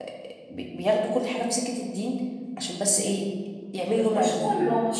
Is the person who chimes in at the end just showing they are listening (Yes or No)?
No